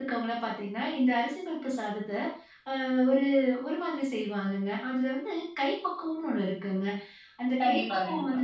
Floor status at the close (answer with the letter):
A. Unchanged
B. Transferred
A